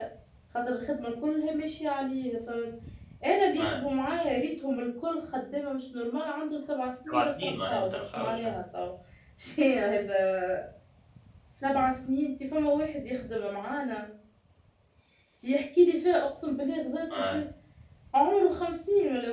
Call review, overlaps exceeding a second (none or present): present